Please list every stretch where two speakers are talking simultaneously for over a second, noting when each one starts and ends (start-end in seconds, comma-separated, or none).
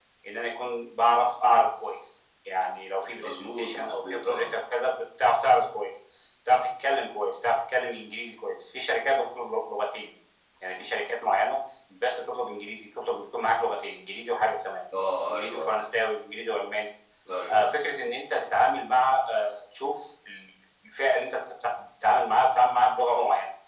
3.2-4.5